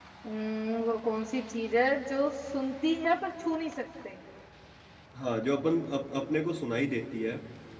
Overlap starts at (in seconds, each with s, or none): none